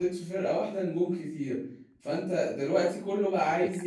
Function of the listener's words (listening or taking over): listening